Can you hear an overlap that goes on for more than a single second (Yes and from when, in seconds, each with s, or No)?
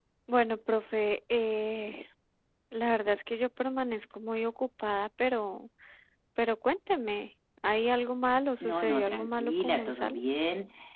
Yes, from 8.6 s